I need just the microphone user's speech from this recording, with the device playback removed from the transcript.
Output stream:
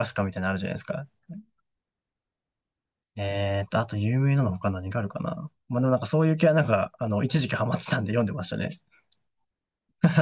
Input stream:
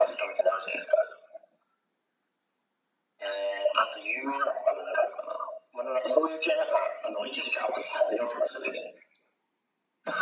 none

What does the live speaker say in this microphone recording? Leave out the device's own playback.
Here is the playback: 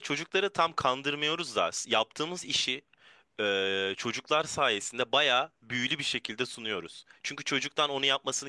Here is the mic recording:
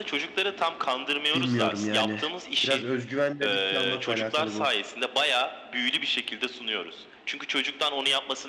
Bilmiyorum yani. Biraz özgüven ve risk almakla alakalı bu.

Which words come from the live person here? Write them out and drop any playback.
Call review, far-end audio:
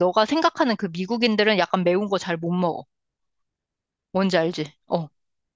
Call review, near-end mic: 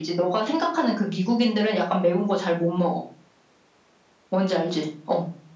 none

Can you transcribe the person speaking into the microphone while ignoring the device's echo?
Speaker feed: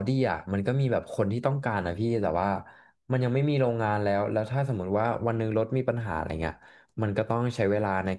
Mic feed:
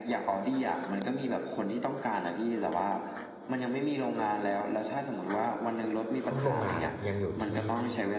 พวกโรงงานอะยังอยู่ที่

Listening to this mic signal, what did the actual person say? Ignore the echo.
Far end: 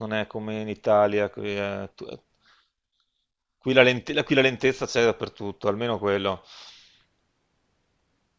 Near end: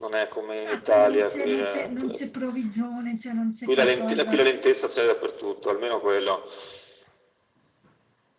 Ah, quindi non c'è non c'è non c'è provvigione, cioè non c'è qualcosa

